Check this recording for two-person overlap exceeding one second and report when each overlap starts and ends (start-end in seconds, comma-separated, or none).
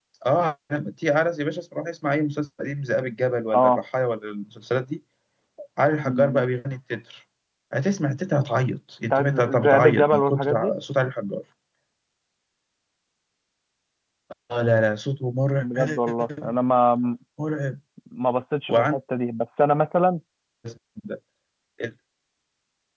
9.1-10.7